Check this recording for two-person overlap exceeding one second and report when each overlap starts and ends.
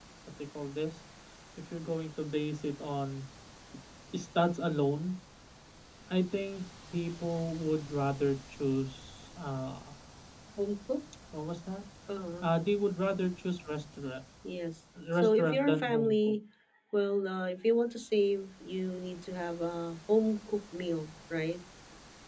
15.1-16.3

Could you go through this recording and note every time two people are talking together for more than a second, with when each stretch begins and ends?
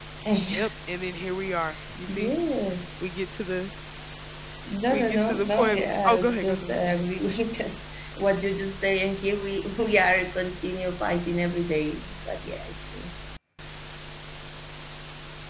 4.9-7.1

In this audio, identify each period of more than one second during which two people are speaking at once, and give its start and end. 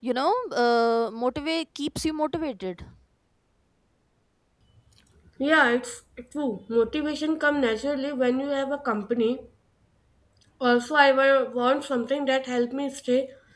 none

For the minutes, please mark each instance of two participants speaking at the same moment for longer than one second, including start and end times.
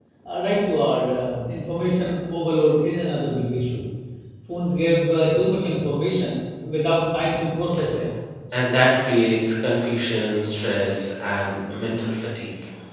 none

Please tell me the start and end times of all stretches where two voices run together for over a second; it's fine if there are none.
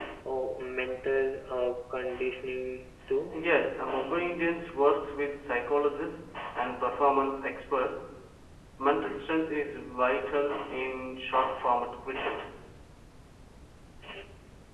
none

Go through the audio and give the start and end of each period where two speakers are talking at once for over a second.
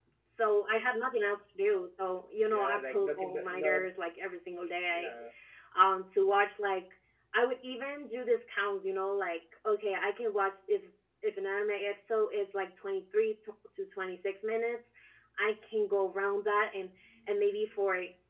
2.5-3.8

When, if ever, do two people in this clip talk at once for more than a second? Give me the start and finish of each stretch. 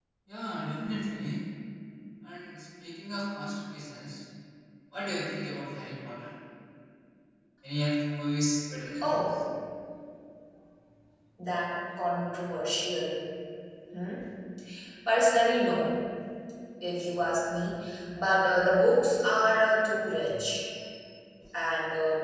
none

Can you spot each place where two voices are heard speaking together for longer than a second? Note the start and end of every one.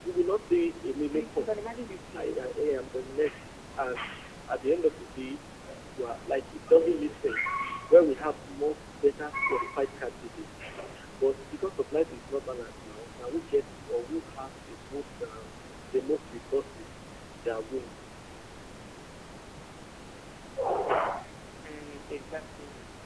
none

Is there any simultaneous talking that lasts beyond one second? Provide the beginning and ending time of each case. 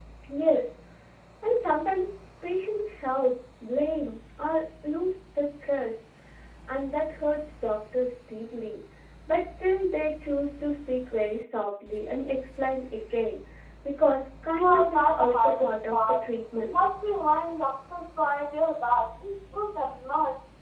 14.6-16.2

